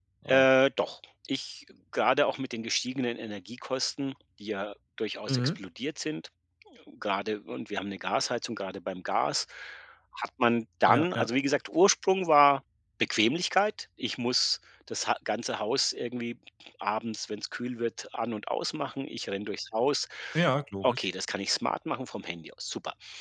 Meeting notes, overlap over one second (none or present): none